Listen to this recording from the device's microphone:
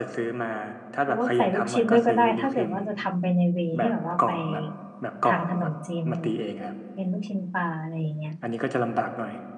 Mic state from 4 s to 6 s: both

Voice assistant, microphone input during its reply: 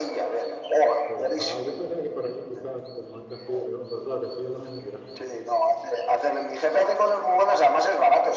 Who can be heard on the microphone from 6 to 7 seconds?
echo only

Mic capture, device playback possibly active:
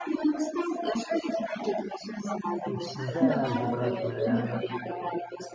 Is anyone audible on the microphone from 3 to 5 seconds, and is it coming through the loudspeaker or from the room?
both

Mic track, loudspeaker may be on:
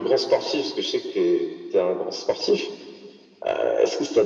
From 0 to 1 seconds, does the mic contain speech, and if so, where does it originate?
echo only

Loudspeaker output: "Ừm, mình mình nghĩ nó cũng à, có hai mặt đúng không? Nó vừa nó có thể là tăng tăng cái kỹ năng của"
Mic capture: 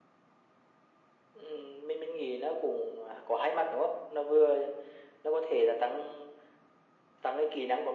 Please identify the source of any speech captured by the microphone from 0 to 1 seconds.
neither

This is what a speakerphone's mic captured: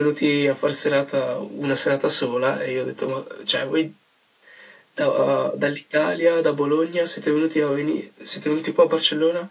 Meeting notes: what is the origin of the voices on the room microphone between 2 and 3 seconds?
echo only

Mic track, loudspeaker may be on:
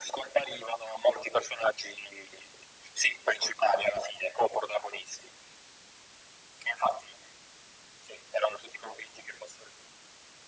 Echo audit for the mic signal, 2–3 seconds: echo only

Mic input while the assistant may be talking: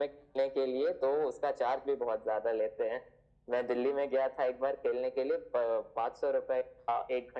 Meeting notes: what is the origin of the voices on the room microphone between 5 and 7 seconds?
echo only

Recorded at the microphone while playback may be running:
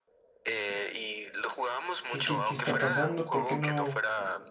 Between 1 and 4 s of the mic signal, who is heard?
both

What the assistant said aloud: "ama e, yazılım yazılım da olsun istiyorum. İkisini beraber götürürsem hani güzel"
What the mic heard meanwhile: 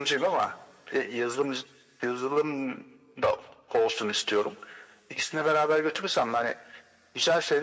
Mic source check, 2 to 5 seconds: echo only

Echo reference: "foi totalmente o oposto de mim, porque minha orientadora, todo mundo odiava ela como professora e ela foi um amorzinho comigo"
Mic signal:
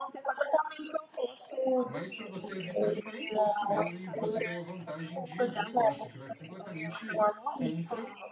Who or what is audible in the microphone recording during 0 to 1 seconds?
echo only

